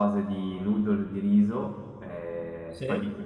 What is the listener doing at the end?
listening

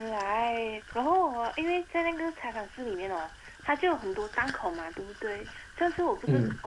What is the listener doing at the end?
listening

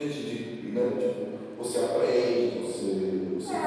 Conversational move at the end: taking over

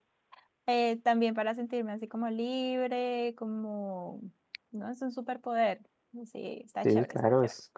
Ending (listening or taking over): taking over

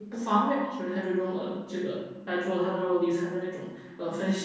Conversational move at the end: taking over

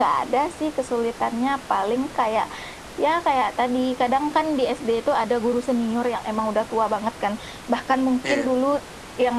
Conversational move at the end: listening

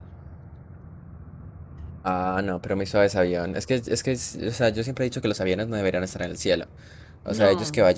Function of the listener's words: listening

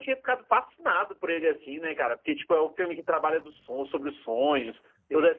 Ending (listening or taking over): listening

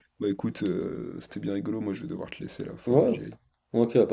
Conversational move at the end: taking over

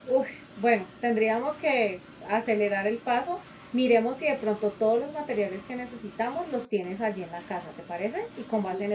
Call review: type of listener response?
taking over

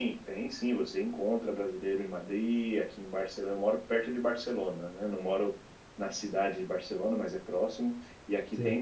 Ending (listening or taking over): listening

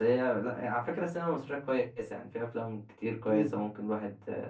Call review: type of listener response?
listening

